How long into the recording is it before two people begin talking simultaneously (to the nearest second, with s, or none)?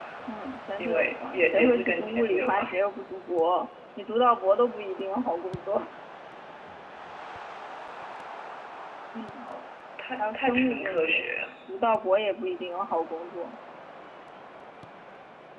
1 s